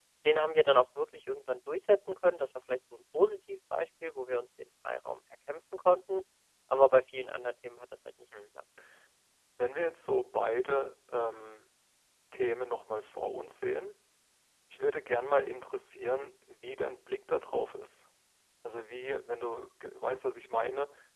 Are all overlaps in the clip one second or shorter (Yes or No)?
Yes